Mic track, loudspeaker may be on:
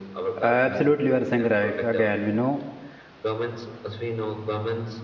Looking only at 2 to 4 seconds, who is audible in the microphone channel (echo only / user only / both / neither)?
both